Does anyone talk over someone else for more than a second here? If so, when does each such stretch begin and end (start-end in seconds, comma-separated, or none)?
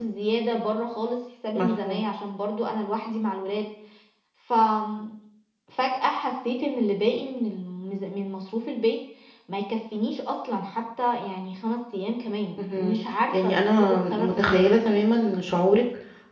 13.4-14.7